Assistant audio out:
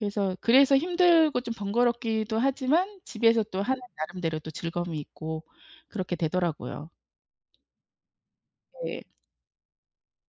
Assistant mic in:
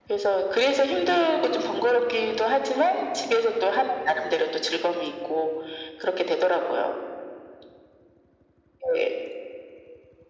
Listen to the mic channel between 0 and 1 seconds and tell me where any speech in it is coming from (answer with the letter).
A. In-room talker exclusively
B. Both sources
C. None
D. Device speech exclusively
D